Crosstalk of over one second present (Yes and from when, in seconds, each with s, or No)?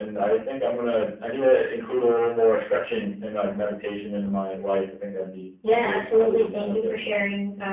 Yes, from 5.6 s